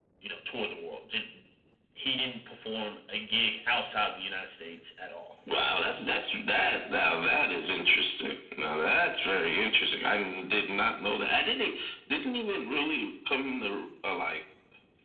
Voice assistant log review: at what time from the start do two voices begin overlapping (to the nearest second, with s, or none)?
none